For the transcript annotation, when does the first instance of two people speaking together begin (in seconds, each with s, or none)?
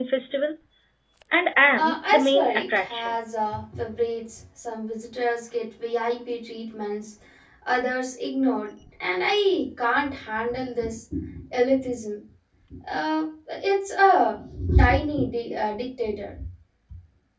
1.8 s